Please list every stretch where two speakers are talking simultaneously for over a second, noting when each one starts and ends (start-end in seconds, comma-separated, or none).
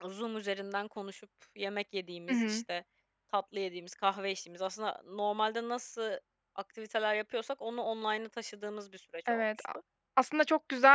none